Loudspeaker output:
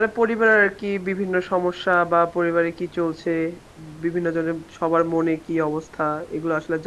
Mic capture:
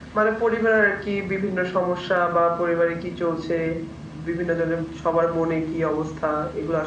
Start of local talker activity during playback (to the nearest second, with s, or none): none